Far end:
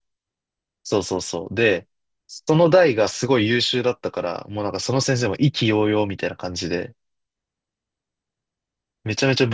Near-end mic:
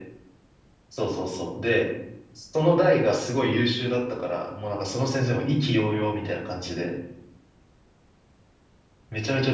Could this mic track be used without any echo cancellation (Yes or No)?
No